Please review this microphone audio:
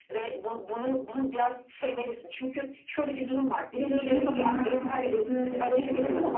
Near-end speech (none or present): present